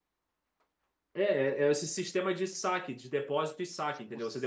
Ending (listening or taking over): taking over